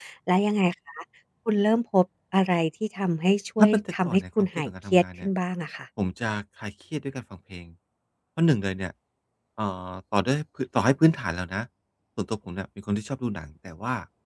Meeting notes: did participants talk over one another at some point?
Yes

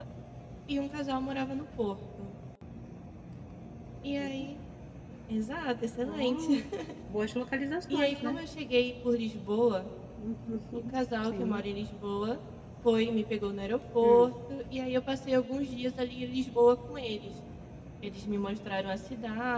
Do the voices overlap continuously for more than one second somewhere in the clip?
No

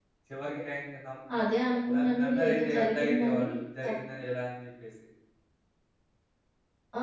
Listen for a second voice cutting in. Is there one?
Yes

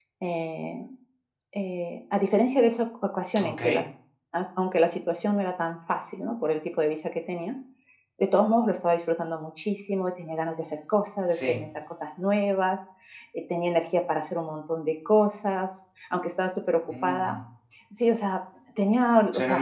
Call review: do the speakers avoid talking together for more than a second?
Yes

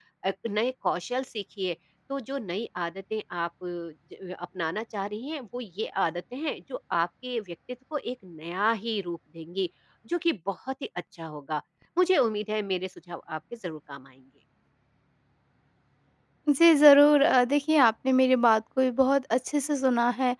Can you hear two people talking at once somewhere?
No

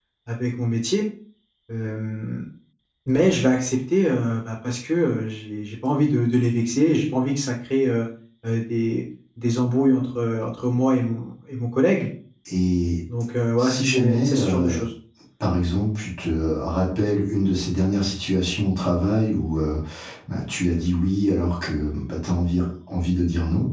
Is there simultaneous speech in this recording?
Yes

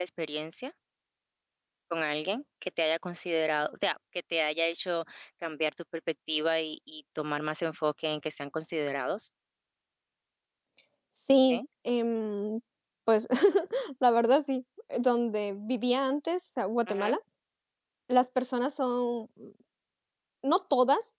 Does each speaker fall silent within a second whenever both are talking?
Yes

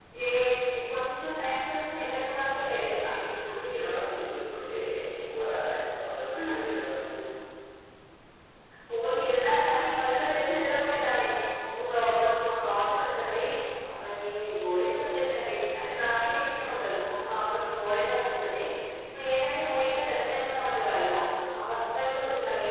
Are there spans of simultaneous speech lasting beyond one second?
No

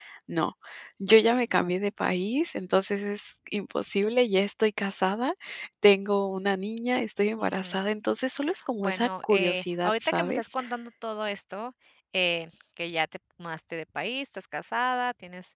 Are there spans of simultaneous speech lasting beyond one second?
Yes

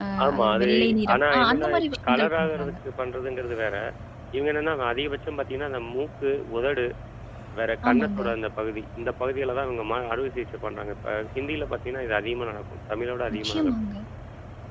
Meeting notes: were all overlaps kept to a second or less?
No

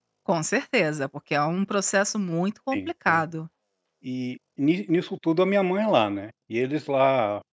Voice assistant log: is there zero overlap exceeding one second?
Yes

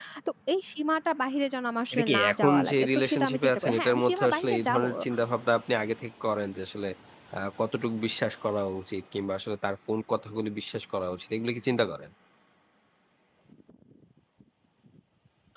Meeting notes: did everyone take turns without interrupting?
No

